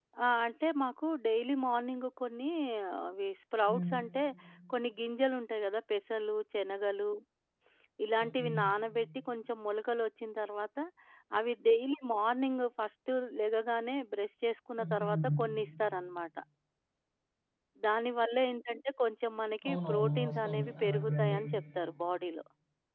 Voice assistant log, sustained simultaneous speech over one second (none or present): present